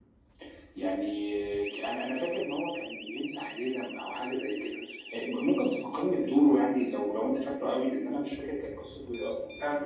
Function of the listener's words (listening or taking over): taking over